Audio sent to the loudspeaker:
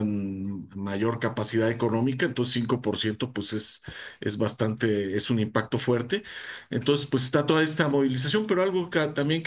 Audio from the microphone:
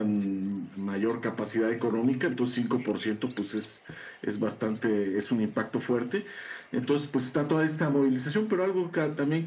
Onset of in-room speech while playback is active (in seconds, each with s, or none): none